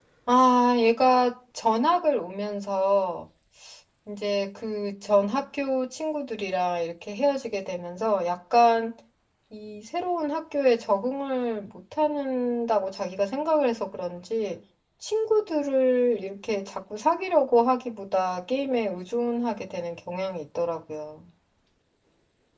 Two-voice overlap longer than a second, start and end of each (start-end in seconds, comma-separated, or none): none